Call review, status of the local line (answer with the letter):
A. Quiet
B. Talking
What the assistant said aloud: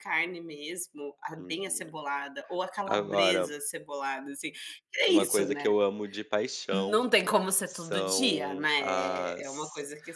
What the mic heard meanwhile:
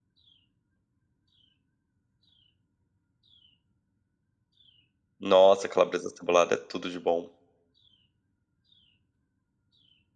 B